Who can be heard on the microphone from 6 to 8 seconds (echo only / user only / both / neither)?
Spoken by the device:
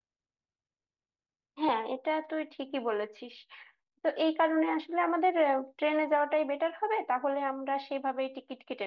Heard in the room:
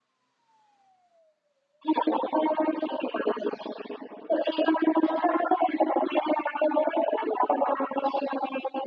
echo only